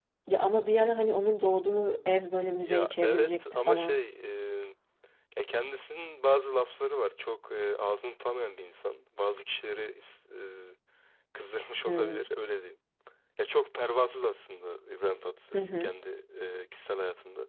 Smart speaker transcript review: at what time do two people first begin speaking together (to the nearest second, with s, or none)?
3 s